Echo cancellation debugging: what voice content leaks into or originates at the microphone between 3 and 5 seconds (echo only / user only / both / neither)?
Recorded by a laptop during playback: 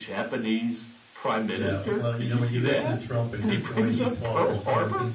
both